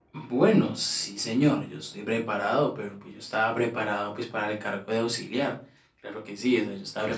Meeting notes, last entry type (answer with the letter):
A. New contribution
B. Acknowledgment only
A